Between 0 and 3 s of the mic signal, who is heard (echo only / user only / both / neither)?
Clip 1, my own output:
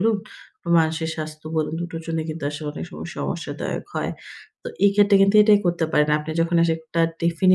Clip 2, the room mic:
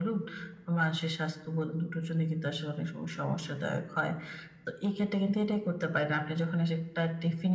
echo only